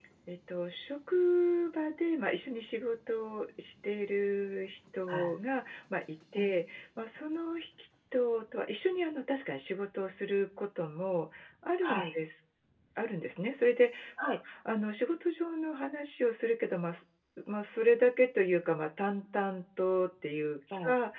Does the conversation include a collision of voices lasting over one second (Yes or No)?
No